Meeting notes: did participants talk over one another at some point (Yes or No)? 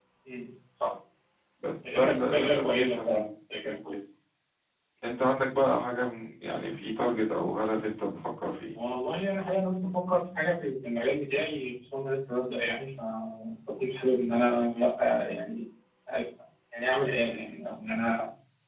Yes